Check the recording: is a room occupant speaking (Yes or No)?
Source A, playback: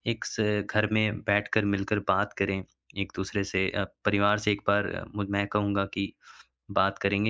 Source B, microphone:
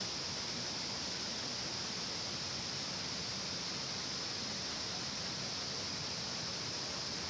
No